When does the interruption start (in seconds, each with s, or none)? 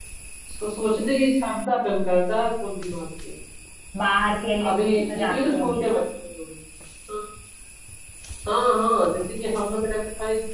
4.6 s